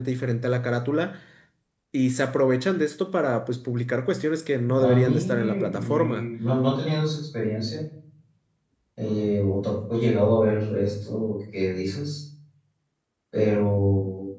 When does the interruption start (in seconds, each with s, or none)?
4.8 s